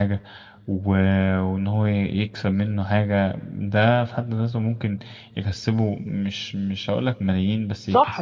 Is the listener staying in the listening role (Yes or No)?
No